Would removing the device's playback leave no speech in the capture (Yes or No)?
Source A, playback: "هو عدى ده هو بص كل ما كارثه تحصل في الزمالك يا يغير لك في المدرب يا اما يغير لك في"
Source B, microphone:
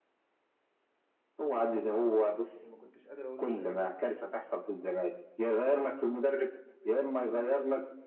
No